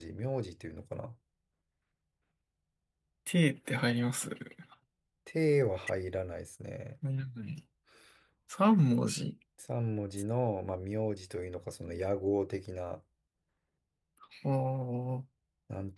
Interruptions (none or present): none